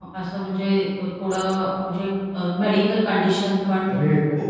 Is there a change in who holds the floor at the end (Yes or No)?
Yes